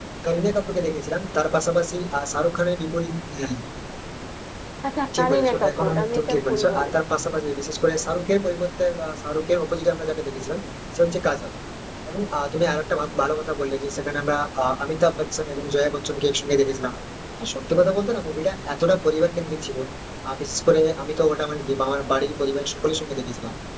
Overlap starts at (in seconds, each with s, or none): 5.2 s